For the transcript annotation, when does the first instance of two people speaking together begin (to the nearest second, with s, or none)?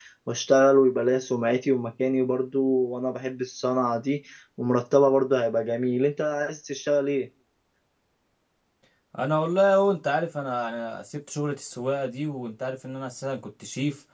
none